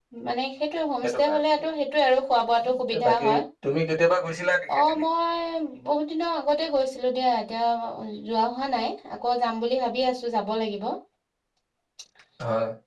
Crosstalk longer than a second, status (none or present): none